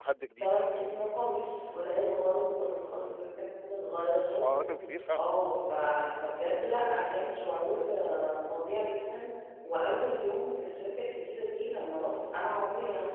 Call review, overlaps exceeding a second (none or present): none